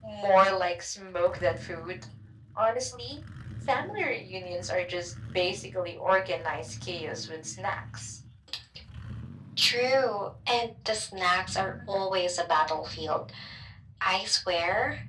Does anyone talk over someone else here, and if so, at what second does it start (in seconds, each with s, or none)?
none